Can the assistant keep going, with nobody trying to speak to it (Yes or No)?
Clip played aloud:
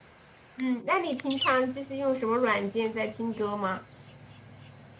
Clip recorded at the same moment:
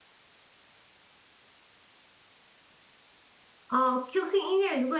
No